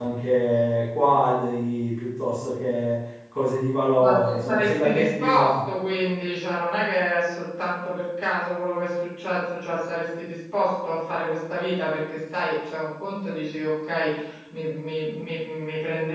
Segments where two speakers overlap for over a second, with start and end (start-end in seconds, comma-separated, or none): 4.0-5.5